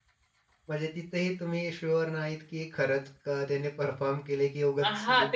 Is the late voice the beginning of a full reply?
Yes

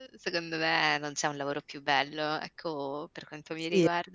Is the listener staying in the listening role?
No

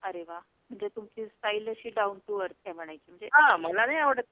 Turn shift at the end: Yes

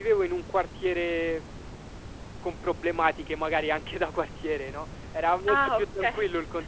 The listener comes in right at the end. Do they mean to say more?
No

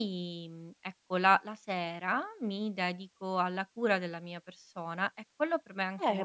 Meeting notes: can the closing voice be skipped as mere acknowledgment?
No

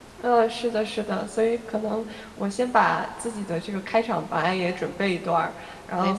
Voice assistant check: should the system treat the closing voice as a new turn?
No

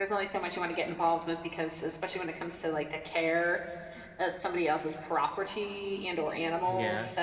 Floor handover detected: No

